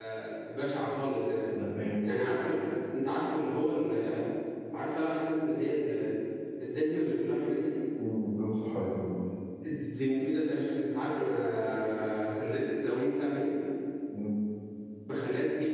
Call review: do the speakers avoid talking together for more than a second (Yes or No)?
Yes